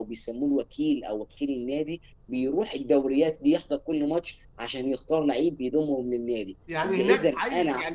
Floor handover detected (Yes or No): Yes